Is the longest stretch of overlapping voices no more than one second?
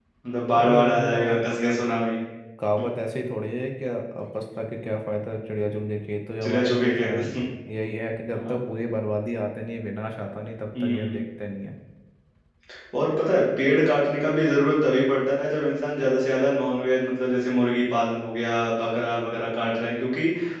No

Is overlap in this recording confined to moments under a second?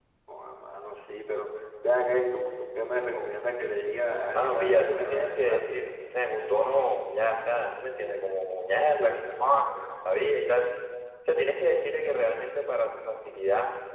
No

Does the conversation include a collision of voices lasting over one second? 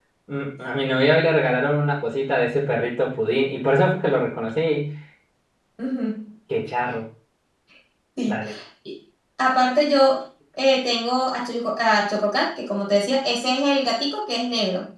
No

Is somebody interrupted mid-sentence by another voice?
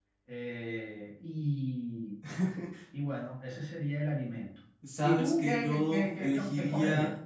Yes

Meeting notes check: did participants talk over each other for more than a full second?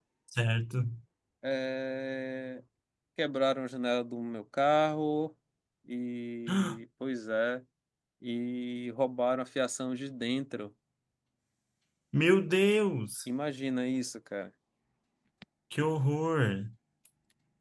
No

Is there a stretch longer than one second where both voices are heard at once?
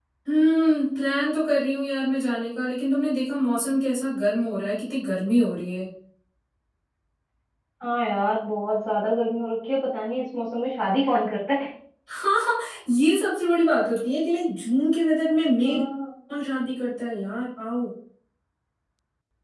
No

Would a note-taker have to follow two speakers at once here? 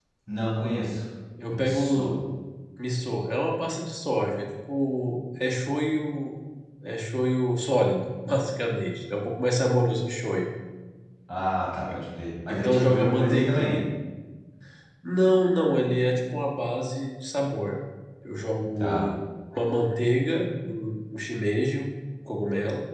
Yes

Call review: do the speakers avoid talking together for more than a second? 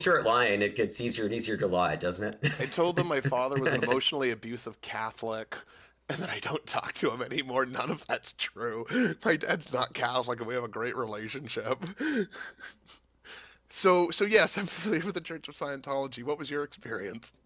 No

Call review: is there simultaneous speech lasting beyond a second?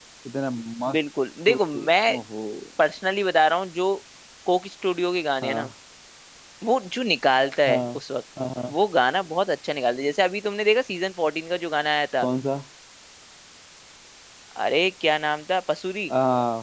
No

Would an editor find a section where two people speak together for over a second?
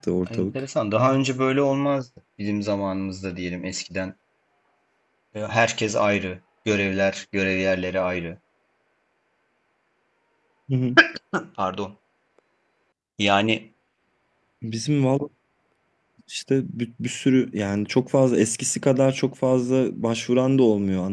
No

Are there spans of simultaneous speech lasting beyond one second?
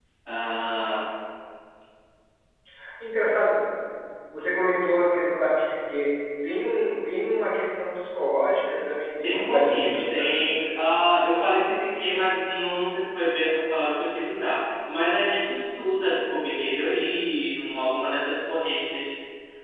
Yes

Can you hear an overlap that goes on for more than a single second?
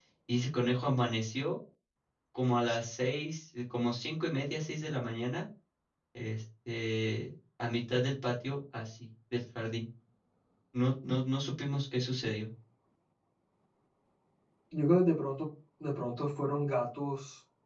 No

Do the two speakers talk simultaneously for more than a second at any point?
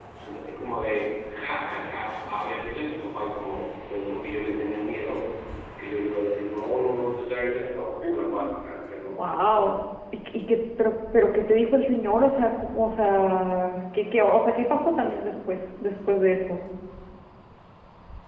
No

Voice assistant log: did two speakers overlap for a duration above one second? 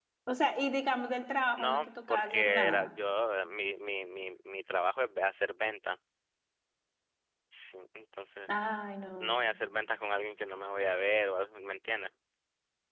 Yes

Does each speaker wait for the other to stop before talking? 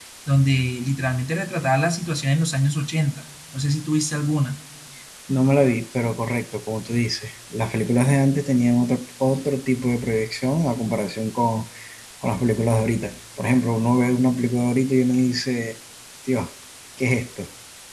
Yes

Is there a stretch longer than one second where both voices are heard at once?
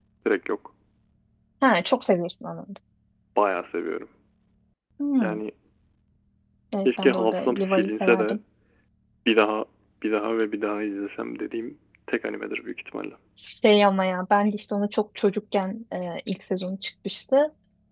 Yes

